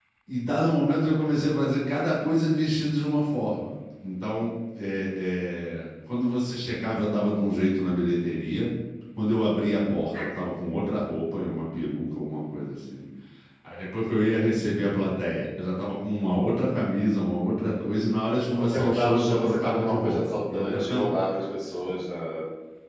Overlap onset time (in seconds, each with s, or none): 18.6 s